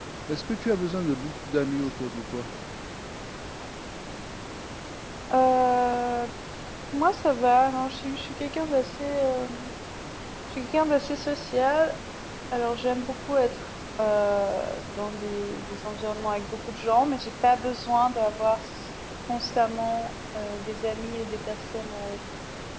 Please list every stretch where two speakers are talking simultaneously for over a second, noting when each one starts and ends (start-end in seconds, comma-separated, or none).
none